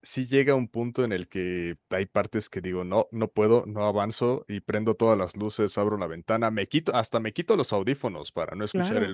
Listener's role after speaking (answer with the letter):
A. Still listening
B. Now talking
A